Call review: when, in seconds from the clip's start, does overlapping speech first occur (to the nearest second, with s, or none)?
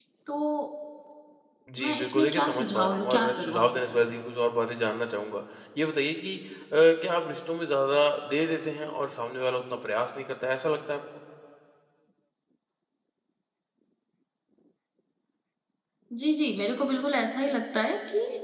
2 s